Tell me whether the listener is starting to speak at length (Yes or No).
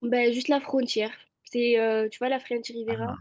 No